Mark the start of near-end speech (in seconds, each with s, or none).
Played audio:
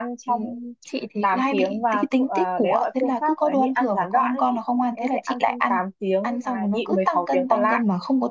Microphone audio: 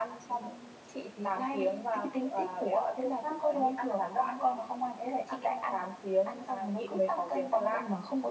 none